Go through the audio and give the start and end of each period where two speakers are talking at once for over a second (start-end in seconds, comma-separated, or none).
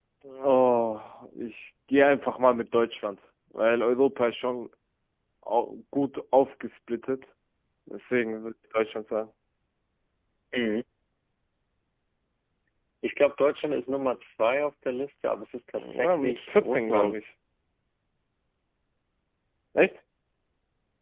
15.9-17.3